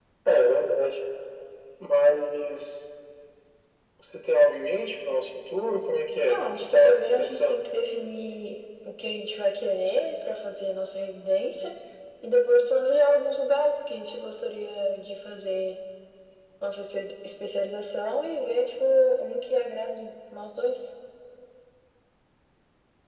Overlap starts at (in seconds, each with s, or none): 6.3 s